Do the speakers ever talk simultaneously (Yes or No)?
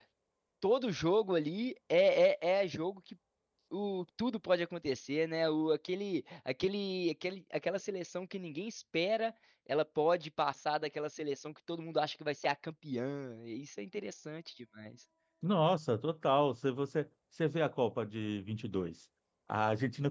No